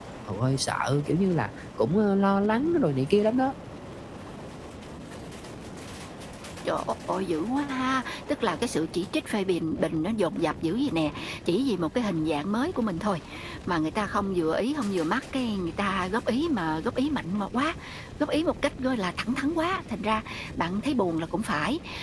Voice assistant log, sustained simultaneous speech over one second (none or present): none